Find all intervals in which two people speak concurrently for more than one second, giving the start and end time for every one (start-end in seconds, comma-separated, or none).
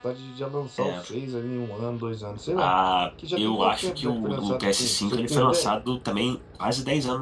3.4-5.7